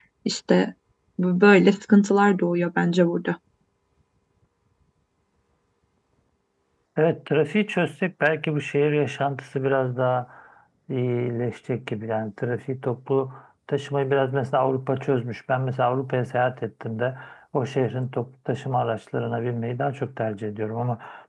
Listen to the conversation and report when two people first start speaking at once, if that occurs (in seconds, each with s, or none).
none